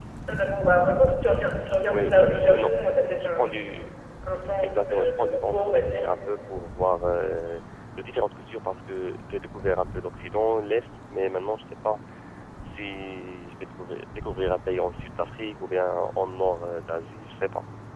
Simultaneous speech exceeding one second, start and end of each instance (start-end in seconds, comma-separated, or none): 1.9-3.5, 4.6-6.0